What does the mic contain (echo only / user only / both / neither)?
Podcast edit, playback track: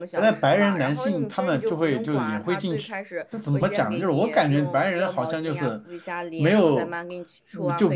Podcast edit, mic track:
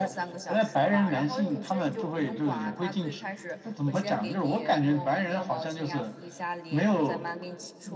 echo only